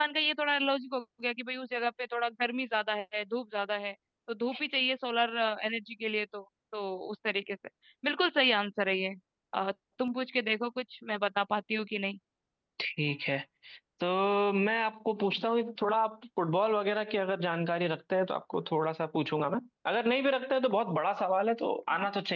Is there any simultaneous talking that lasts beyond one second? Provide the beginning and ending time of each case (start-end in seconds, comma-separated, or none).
none